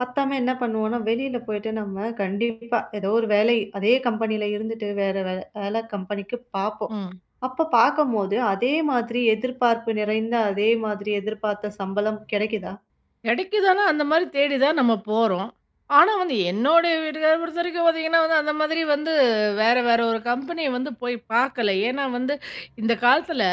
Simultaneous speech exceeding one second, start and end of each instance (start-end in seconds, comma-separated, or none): none